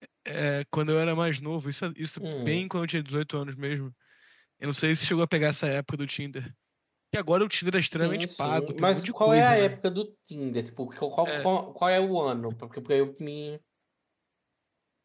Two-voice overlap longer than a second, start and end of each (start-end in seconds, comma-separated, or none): 8.0-9.8